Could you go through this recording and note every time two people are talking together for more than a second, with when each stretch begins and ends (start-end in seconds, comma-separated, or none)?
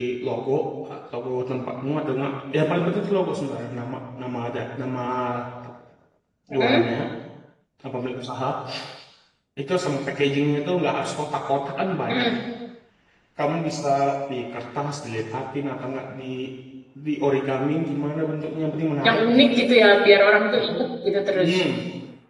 none